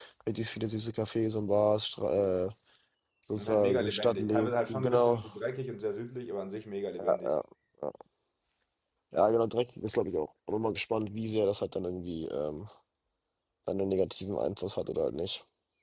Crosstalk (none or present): present